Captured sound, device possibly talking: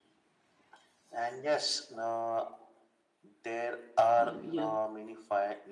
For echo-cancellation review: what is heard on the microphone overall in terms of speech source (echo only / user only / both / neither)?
both